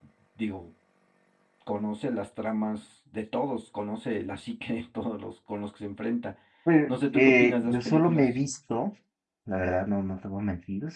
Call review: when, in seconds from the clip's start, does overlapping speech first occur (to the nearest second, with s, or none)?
7 s